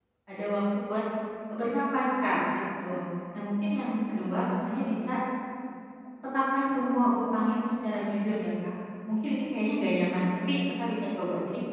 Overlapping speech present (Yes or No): No